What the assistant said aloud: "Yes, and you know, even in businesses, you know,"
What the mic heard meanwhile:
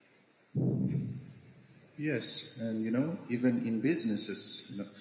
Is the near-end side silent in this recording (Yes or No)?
Yes